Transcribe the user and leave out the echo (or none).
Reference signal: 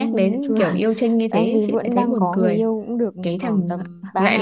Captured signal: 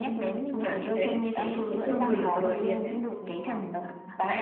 ừ, đấy thấy chưa quyền lực của đồng tiền đấy